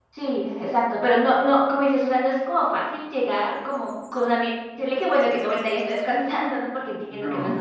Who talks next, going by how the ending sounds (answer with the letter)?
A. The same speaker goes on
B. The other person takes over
B